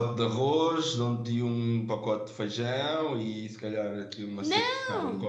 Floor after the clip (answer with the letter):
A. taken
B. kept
B